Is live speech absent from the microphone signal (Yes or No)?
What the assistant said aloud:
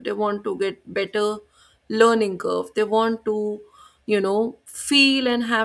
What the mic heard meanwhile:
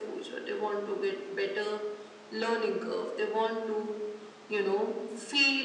Yes